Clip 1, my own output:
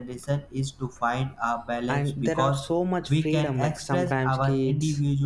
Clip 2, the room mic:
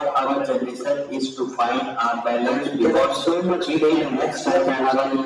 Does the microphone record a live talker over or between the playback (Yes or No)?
No